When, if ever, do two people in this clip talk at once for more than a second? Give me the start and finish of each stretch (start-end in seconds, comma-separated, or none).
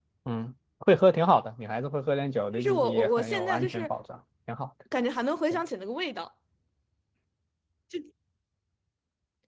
2.5-3.9